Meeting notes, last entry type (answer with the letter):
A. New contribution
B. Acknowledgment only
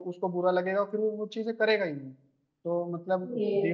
B